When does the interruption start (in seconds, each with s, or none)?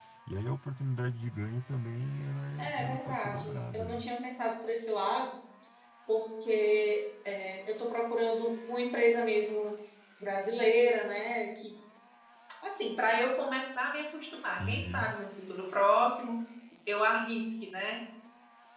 2.6 s